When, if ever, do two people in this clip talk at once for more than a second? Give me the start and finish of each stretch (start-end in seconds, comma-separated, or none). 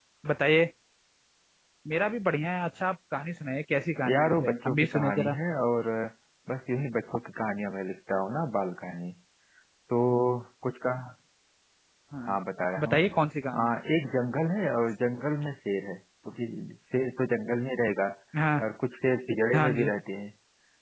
4.1-5.3